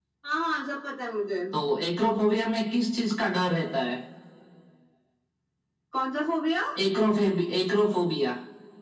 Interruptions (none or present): none